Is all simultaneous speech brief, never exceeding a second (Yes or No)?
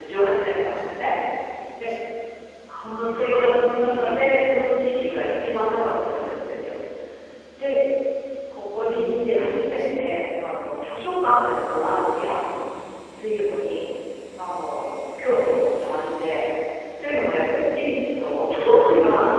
No